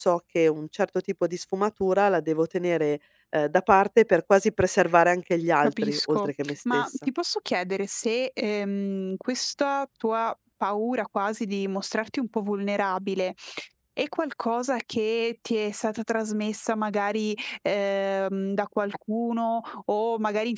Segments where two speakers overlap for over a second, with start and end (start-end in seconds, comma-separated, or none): 5.6-6.9